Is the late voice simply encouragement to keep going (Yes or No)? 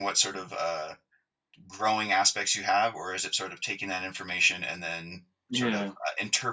Yes